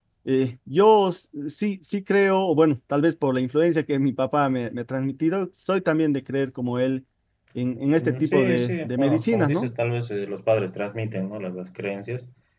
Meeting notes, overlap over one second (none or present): present